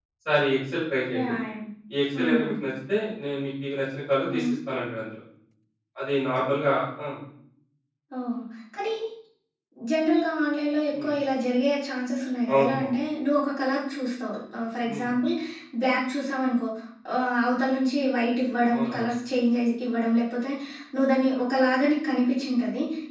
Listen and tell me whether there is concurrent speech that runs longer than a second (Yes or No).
No